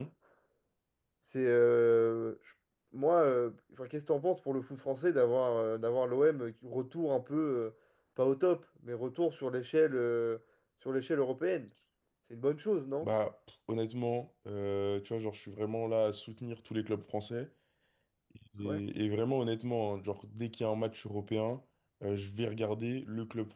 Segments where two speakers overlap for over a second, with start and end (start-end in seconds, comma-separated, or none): none